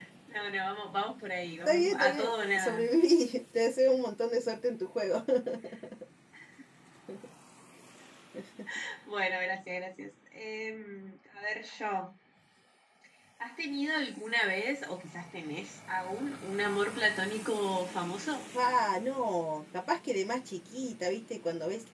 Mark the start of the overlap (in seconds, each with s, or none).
1.7 s